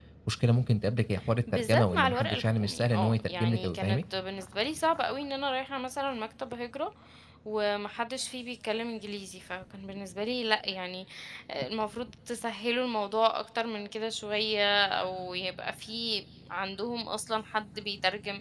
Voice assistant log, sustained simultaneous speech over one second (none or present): present